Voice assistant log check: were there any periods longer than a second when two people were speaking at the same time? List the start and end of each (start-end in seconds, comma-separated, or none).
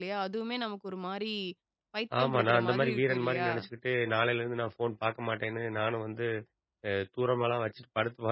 2.2-3.5